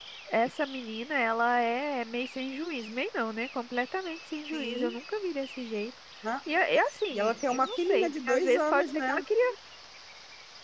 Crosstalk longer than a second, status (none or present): present